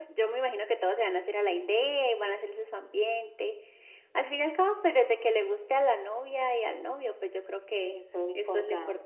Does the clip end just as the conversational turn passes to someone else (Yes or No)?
Yes